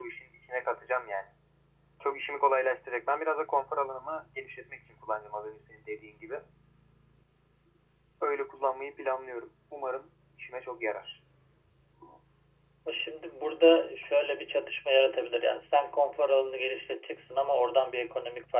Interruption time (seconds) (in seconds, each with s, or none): none